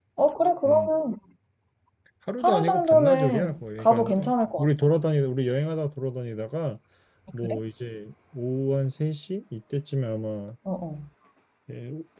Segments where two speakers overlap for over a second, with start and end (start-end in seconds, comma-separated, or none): 2.4-4.2